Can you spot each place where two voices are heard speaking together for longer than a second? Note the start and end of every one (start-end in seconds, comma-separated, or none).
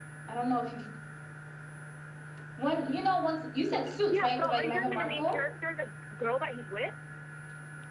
4.0-5.4